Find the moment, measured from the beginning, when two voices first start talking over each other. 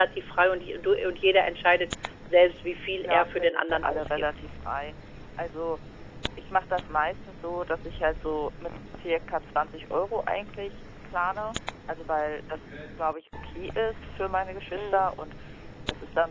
3.0 s

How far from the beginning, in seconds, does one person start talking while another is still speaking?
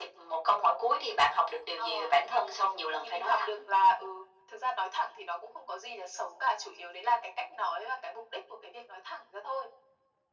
1.8 s

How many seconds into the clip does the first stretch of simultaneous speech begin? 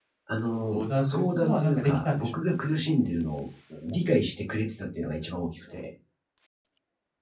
0.7 s

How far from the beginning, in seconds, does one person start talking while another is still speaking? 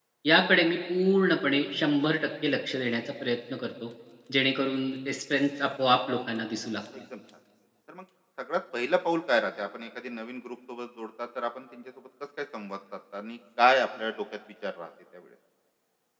none

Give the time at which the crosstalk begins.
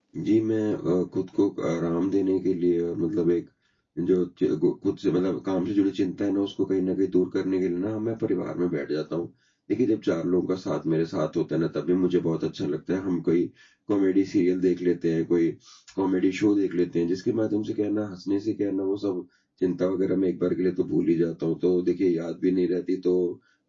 none

